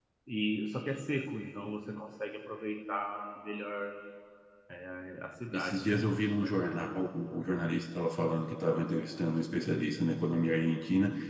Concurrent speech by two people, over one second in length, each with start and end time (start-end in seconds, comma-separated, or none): 5.5-6.8